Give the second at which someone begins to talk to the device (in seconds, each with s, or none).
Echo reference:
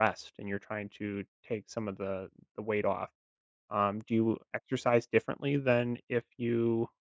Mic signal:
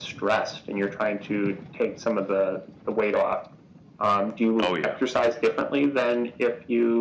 4.6 s